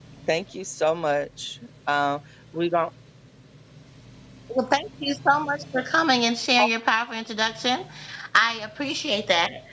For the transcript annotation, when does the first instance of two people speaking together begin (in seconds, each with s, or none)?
none